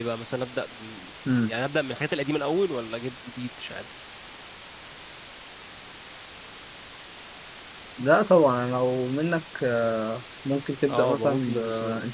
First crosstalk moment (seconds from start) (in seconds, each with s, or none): 10.9 s